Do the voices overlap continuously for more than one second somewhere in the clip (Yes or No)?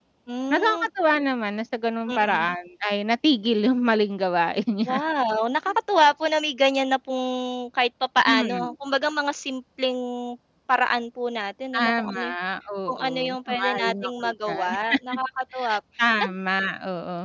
Yes